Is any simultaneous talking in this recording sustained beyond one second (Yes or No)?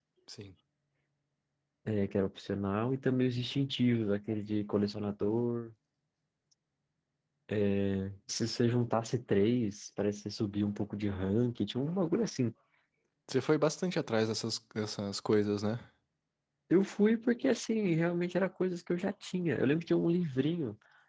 No